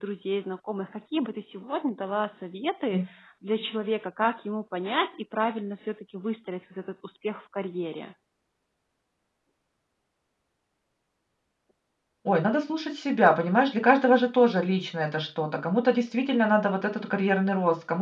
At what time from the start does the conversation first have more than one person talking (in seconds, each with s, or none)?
none